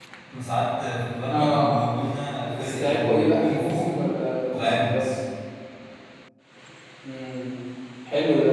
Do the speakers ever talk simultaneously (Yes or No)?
Yes